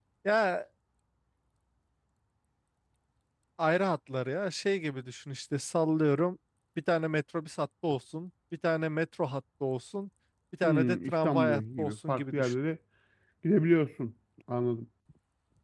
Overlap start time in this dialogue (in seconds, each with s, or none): 10.6 s